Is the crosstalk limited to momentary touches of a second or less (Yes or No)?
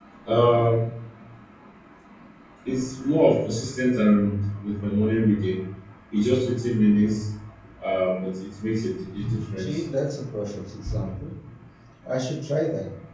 Yes